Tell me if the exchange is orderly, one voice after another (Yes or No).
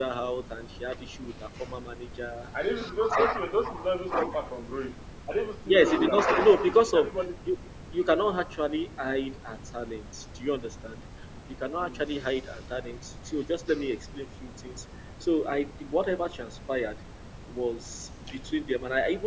No